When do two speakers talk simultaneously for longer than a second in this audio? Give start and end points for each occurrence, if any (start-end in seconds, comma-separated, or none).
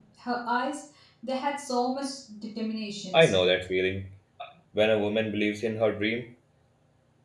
none